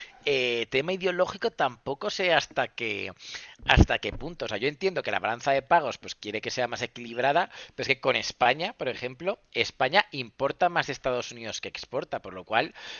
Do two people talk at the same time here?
No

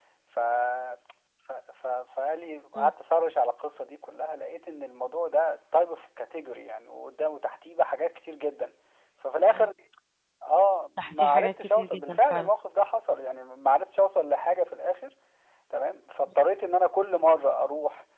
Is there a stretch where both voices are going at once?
Yes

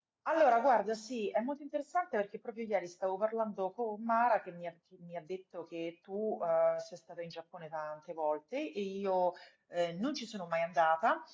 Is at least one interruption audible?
No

